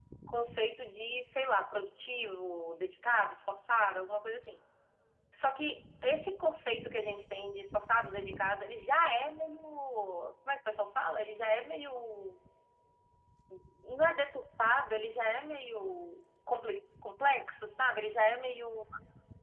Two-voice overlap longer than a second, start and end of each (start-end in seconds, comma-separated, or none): none